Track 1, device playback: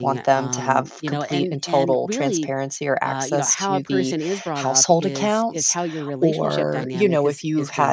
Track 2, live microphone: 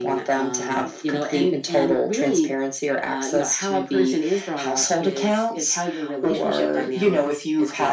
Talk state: echo only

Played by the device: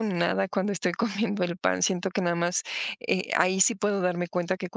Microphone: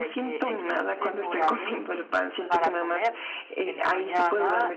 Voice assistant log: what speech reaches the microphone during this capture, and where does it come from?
both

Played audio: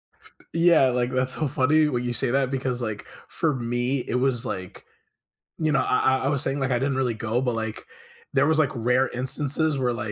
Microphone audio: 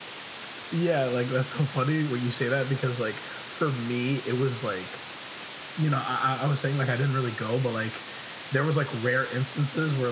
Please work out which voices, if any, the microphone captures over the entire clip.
echo only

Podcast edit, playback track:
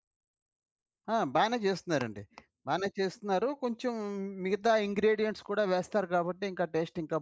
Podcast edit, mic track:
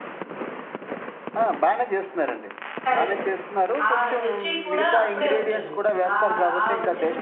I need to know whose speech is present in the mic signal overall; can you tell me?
both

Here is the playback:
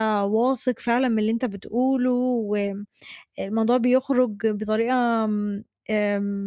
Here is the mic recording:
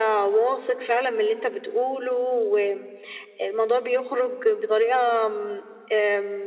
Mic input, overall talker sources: echo only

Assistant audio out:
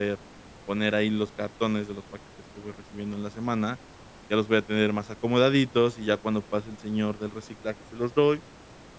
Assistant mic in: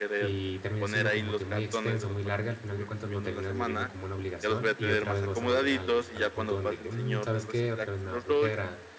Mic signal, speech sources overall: both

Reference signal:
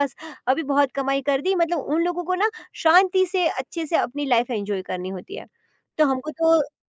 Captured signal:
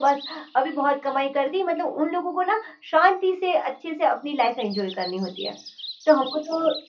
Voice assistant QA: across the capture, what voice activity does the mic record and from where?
echo only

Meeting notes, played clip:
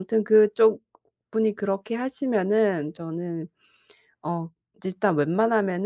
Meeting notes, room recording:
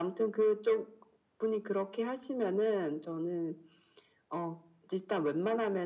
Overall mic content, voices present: echo only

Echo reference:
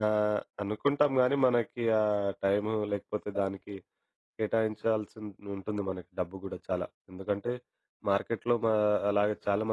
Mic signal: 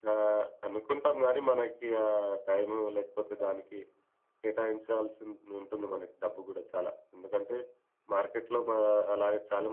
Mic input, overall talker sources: echo only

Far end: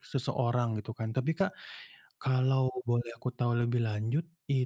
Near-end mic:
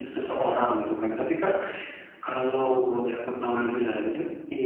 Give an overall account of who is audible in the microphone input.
echo only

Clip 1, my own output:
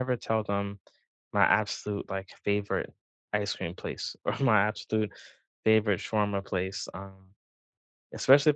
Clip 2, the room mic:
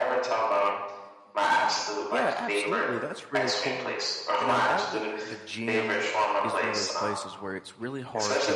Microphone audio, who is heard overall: both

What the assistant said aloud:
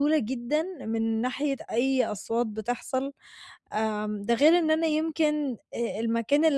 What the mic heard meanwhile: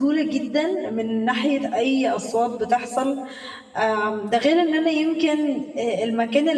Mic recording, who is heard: echo only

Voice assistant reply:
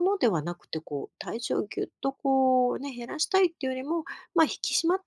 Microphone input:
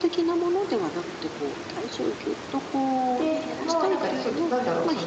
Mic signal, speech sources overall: both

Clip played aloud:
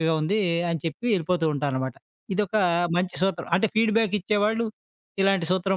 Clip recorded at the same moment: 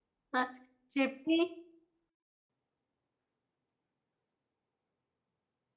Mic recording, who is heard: user only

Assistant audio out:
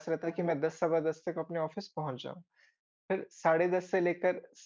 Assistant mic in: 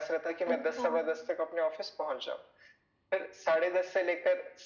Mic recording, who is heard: both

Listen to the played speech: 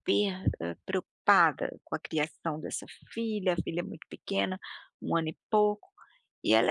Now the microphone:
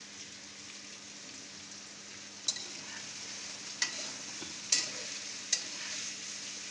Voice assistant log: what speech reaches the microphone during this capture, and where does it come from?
neither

